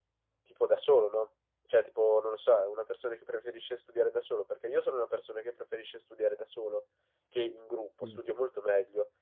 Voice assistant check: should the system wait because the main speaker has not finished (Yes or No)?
Yes